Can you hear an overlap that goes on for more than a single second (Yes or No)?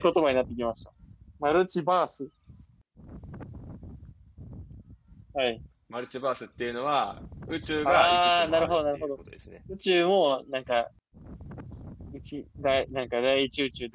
Yes